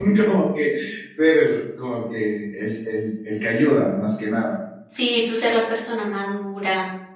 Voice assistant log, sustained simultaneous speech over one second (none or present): none